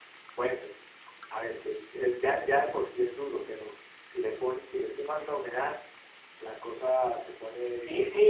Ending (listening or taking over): taking over